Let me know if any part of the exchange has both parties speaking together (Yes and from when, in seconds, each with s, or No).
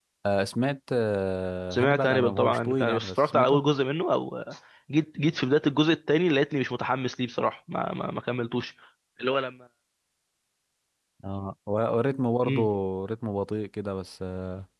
Yes, from 1.7 s